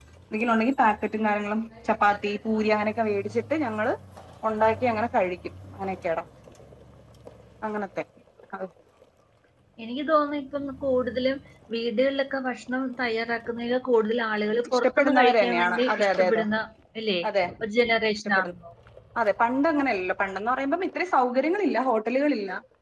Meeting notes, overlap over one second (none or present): present